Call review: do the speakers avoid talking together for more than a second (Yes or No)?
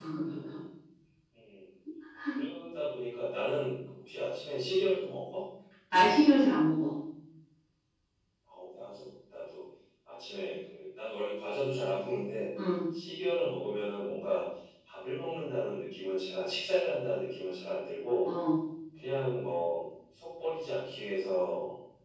Yes